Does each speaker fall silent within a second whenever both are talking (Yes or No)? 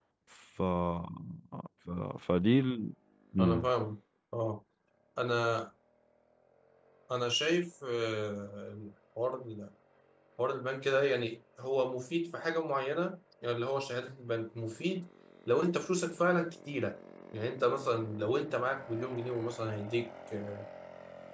Yes